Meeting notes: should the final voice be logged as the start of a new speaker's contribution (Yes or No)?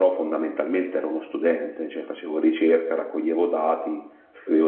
No